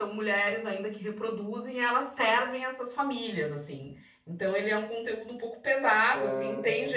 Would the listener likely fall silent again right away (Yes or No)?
Yes